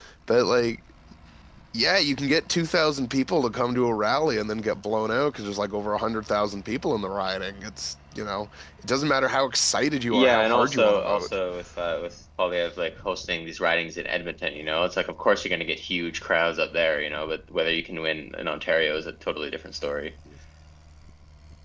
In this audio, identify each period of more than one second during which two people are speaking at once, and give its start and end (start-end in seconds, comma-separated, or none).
10.1-11.4